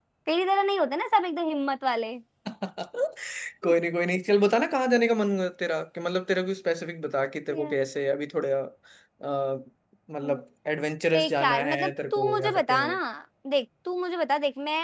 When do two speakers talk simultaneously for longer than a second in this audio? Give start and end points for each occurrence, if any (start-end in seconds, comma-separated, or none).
11.1-13.0